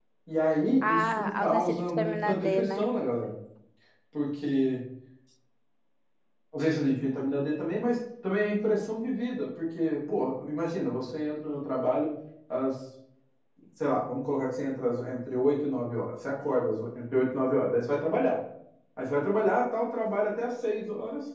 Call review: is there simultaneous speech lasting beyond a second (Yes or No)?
Yes